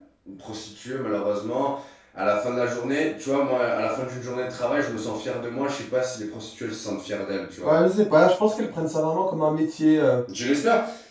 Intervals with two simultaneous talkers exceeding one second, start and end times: none

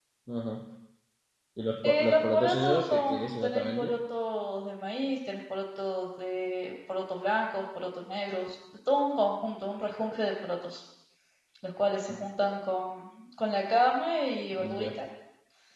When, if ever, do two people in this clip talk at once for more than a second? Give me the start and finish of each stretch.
1.8-4.0

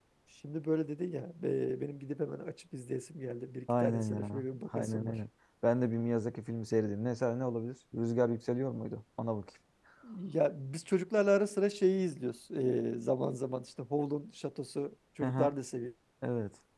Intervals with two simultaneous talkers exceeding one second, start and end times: 3.8-5.1

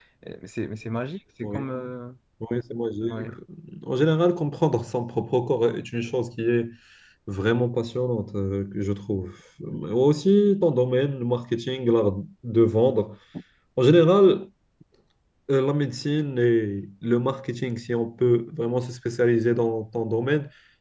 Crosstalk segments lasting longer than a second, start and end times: none

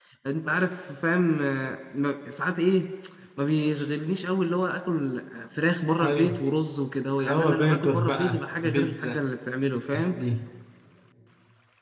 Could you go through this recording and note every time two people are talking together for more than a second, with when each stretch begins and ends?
7.2-9.2

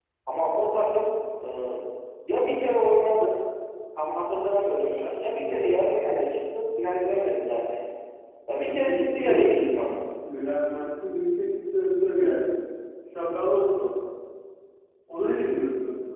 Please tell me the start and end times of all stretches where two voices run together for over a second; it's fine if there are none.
8.5-10.0

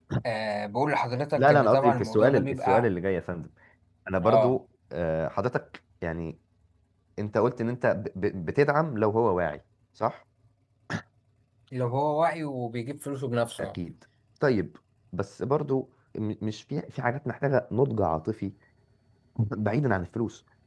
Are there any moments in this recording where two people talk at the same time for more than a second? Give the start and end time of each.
1.4-2.9

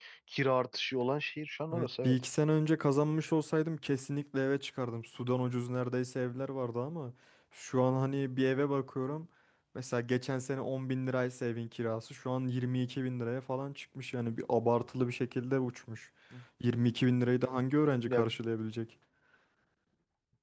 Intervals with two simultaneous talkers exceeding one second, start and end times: none

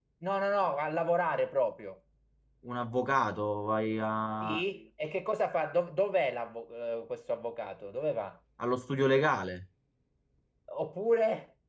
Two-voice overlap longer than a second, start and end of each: none

